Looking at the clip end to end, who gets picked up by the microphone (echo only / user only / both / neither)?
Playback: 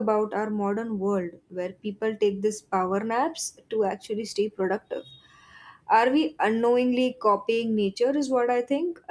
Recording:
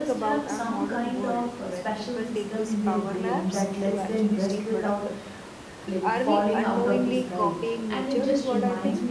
both